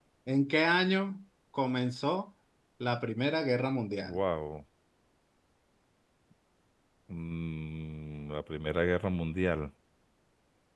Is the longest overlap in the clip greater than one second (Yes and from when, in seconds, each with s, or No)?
No